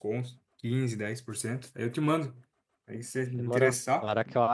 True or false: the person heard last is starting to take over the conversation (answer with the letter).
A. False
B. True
B